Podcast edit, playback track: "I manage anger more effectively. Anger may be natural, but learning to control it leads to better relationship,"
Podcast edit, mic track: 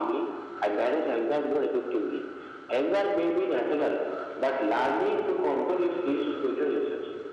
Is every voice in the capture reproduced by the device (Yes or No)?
Yes